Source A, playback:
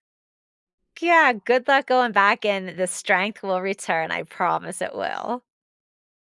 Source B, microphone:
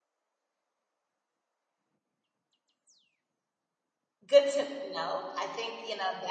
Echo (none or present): none